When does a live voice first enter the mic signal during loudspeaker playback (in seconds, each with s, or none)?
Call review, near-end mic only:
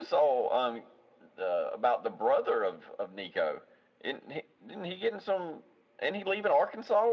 none